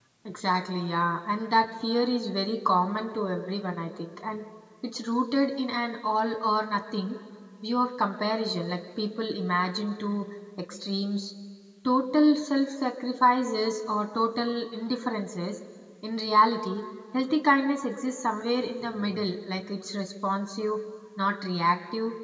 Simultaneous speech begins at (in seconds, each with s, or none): none